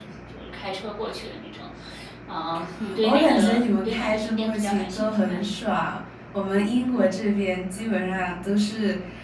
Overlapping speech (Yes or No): Yes